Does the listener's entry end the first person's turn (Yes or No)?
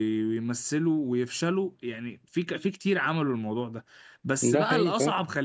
No